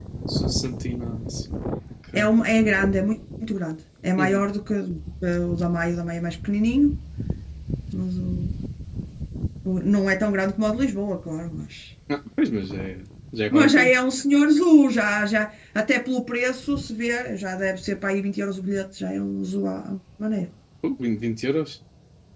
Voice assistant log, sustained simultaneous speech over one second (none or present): none